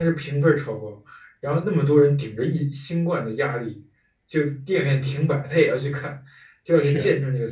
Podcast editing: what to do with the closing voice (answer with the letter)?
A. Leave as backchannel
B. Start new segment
A